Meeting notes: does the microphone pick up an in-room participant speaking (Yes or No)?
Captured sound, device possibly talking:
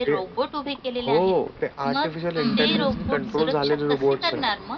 Yes